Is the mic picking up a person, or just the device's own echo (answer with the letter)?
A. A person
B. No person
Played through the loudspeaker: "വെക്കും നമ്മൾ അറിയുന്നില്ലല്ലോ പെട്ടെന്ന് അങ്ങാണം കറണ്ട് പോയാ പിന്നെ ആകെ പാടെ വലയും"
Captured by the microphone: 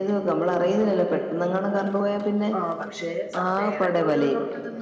A